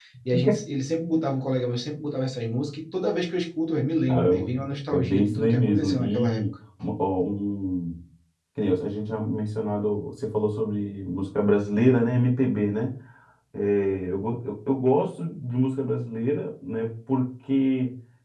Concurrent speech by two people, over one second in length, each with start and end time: 4.1-6.4

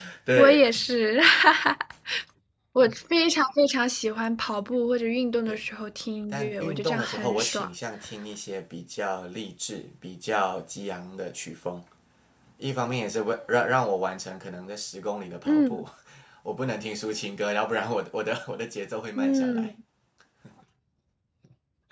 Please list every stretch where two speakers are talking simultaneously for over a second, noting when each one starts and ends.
6.3-7.7

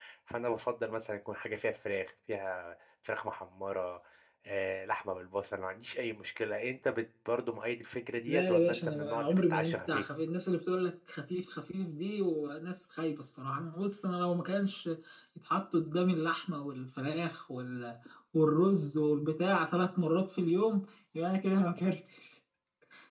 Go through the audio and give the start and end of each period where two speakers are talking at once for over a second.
8.3-10.0

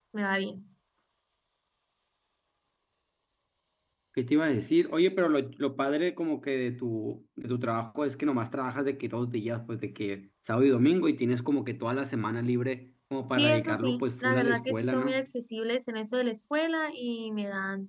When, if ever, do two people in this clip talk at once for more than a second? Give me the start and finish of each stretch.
13.4-15.3

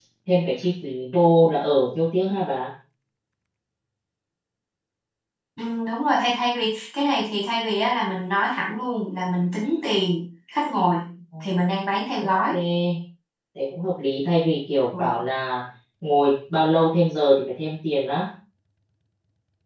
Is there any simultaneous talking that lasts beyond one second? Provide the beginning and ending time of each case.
none

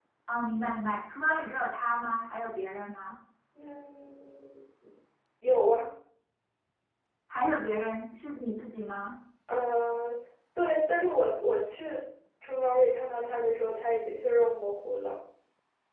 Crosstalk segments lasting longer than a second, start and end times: none

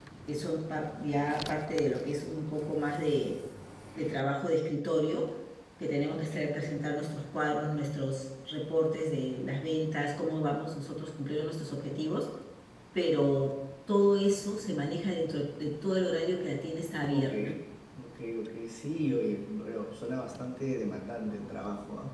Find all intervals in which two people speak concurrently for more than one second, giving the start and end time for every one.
none

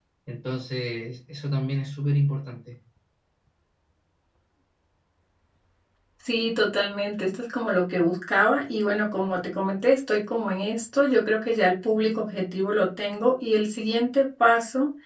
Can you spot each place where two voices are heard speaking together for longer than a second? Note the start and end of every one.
none

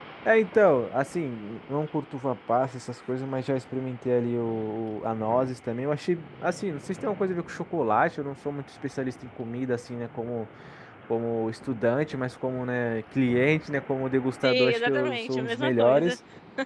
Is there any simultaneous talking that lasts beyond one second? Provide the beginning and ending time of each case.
14.4-16.2

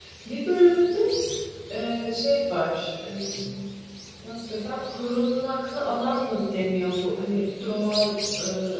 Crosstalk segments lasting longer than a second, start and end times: none

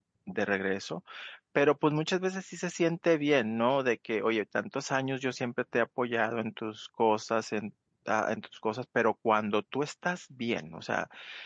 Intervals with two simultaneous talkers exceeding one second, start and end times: none

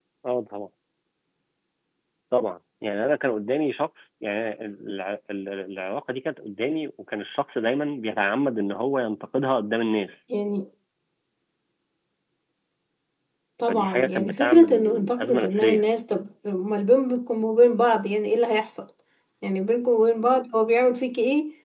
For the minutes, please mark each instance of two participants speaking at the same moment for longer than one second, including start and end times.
13.7-15.8

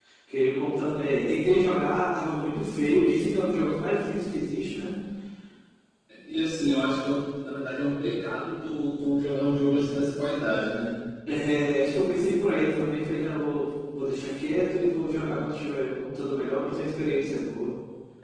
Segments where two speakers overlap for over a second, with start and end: none

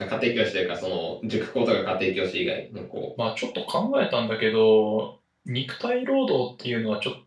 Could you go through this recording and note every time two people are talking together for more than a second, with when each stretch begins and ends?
none

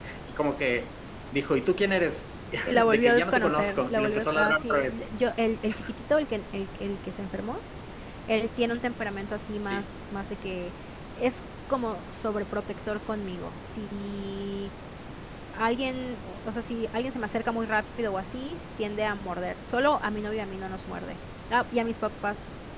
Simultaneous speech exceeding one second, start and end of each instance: 2.9-5.0

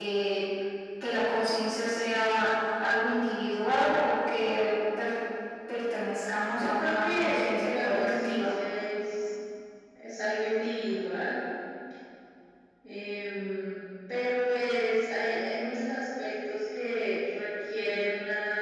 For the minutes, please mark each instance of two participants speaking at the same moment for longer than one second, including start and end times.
6.6-8.5

